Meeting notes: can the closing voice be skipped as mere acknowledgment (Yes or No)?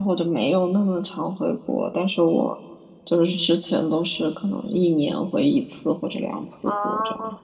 No